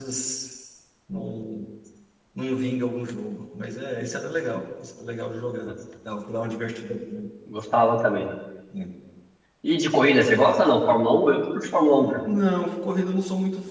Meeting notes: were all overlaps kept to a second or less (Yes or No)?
Yes